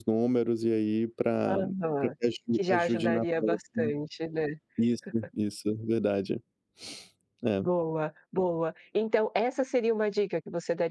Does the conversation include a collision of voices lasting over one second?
Yes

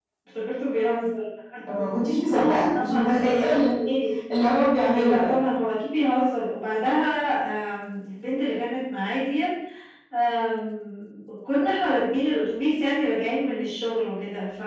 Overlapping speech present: Yes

